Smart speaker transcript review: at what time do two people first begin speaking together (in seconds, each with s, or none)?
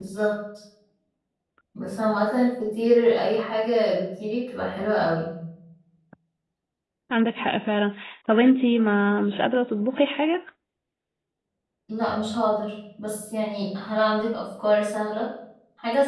none